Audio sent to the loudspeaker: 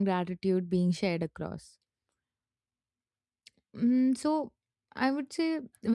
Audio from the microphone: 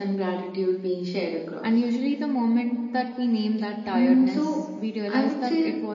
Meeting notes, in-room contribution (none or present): present